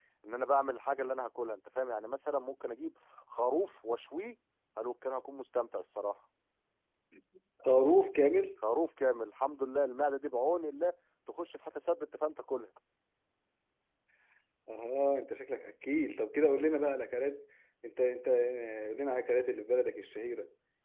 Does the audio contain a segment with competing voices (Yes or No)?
No